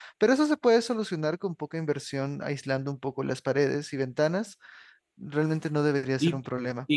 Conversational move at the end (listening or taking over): taking over